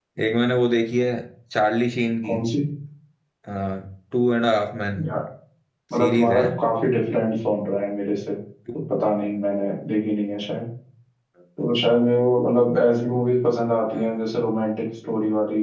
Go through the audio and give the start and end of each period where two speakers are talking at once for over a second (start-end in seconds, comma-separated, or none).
none